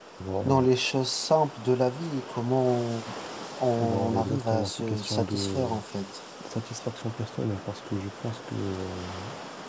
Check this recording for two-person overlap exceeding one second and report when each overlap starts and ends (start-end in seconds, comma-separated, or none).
3.8-5.8